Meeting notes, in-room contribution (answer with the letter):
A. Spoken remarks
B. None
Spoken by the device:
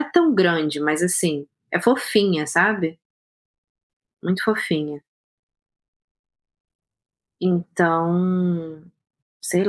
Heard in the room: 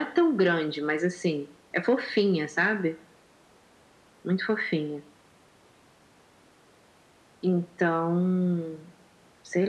B